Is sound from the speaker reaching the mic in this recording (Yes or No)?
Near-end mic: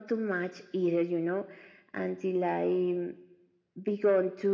Yes